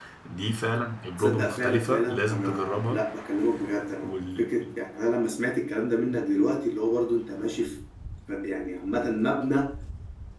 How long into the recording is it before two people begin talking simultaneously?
1.2 s

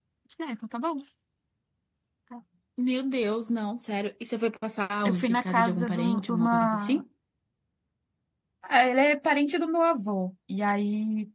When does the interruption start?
5.0 s

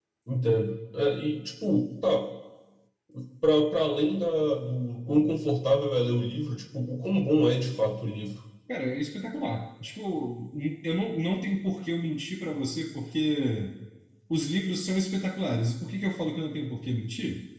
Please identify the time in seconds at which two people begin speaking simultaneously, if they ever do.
none

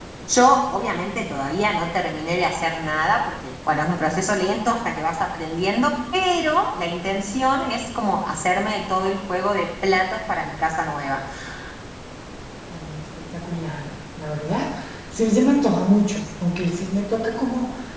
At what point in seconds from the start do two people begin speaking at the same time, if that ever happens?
none

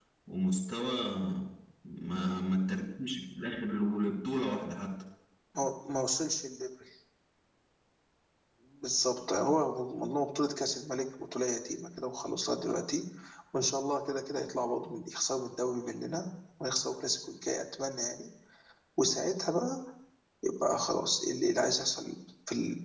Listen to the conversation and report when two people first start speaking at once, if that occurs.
none

